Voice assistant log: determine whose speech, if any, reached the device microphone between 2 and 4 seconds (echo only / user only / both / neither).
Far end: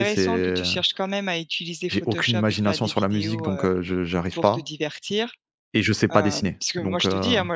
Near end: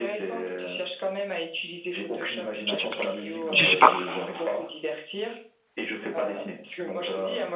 both